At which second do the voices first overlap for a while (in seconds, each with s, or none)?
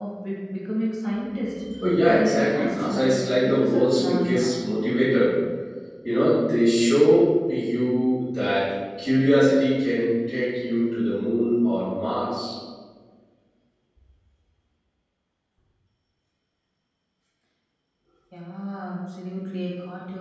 2.0 s